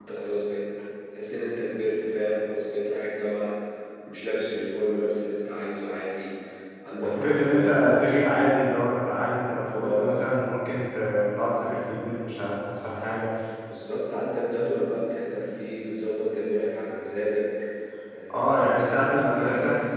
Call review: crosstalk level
present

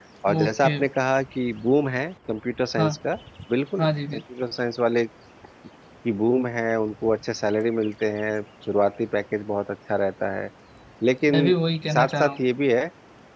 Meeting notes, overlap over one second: none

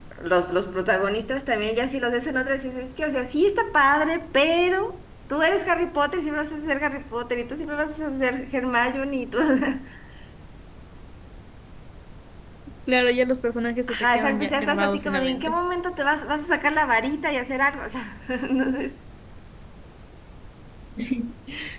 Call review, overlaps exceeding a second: present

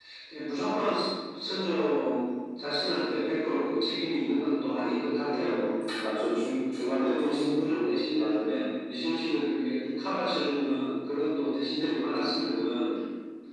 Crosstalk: present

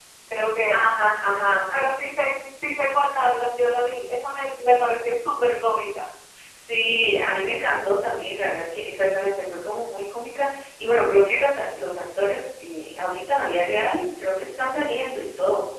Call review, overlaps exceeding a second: none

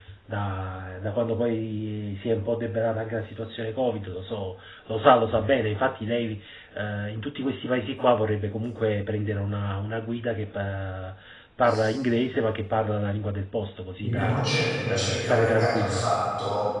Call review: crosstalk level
present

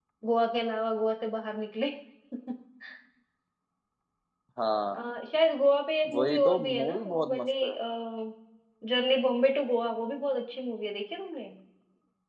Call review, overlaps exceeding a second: present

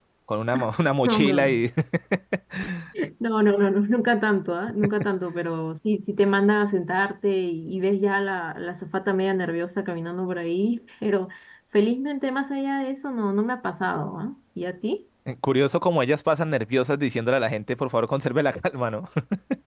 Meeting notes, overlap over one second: none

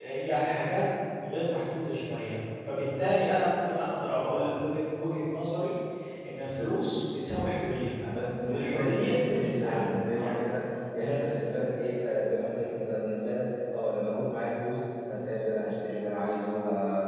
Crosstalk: present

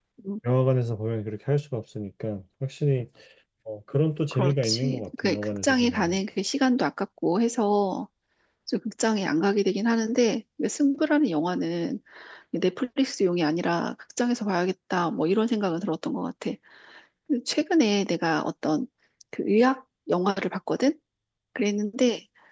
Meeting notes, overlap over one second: present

